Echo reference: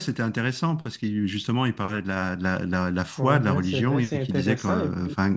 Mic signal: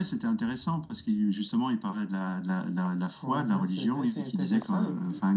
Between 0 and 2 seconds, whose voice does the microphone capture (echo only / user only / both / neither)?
echo only